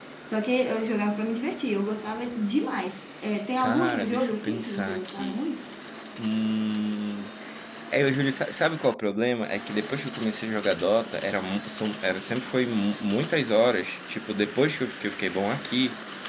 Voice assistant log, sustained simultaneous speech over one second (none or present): present